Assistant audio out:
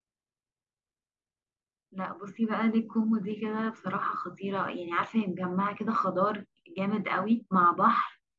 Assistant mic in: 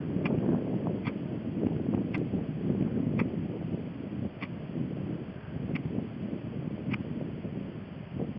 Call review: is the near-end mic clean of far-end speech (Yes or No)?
Yes